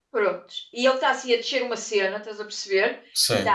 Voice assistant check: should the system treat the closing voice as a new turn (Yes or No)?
No